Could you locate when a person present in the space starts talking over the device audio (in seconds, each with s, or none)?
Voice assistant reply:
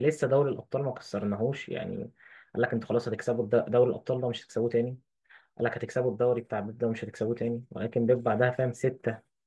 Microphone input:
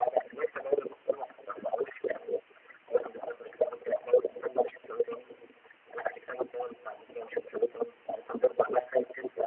none